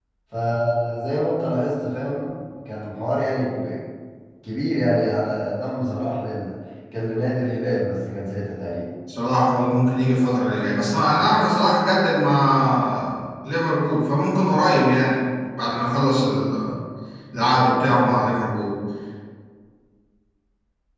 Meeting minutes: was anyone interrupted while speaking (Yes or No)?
No